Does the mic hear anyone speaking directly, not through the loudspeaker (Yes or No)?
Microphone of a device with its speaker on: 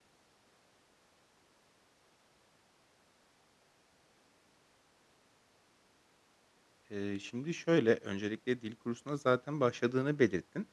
Yes